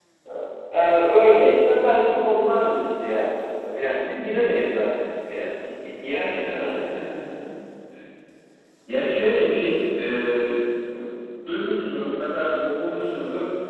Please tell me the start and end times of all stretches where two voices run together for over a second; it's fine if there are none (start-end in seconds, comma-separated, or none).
none